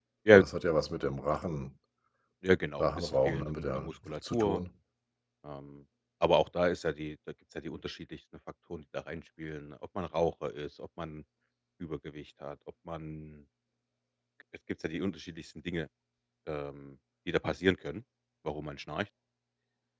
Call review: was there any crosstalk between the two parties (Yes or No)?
Yes